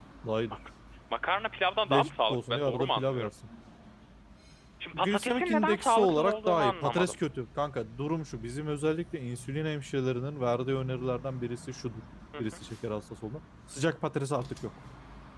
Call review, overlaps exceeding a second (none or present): present